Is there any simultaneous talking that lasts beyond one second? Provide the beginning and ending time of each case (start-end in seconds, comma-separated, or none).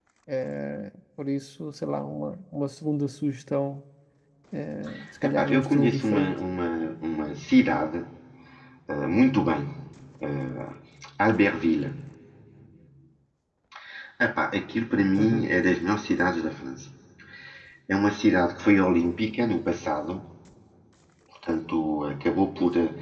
5.2-6.4